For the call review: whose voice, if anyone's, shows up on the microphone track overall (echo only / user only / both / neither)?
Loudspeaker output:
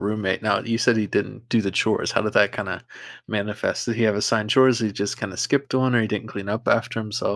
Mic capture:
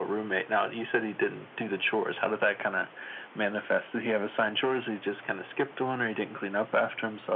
echo only